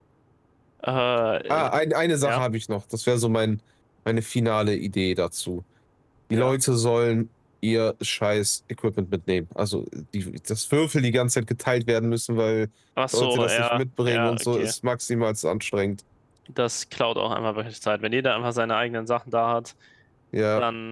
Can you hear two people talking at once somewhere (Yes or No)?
Yes